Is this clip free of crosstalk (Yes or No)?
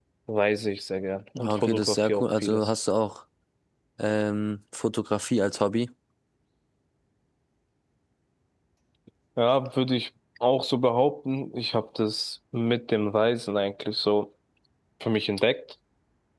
No